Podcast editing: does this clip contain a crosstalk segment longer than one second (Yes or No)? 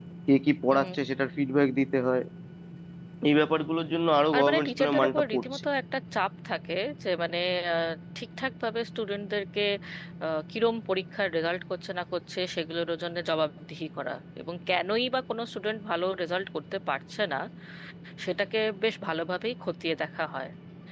Yes